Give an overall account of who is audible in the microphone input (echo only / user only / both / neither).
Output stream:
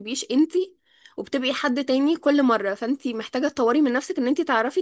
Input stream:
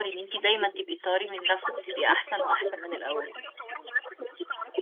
both